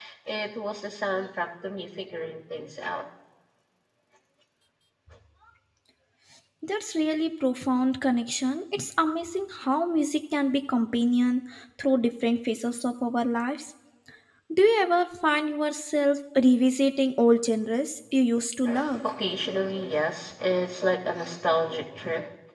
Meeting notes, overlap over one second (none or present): none